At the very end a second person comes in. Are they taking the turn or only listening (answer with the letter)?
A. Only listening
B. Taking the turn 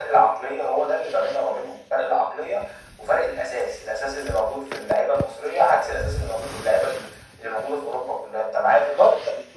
B